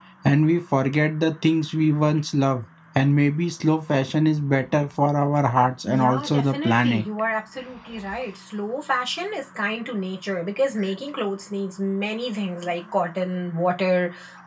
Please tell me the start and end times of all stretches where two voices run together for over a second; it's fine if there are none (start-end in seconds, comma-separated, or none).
5.8-7.0